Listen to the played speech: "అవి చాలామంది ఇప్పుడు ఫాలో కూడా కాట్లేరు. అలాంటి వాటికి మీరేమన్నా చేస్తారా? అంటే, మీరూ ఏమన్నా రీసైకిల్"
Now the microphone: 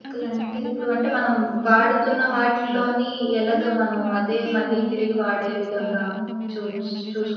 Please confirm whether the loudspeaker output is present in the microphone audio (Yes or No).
Yes